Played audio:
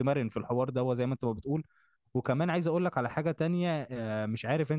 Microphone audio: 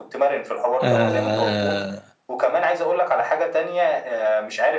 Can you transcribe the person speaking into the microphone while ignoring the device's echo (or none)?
آه،